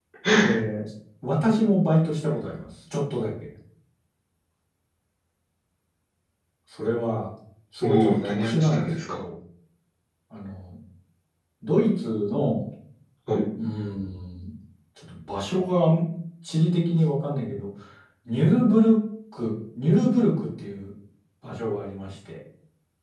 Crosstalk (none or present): present